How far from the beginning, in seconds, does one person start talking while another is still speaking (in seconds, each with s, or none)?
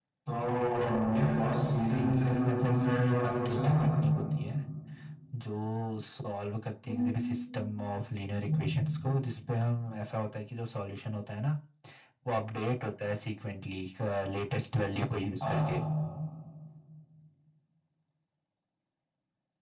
1.8 s